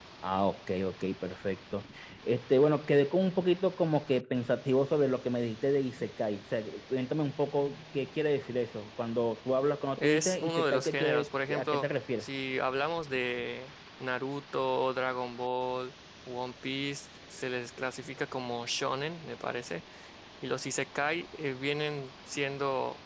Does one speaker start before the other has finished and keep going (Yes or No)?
Yes